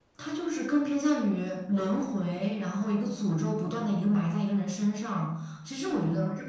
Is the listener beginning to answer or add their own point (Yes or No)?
No